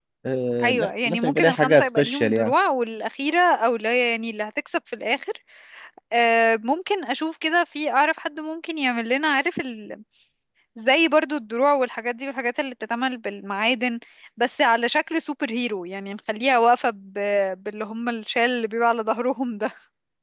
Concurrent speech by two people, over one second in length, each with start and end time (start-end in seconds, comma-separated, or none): 0.6-2.5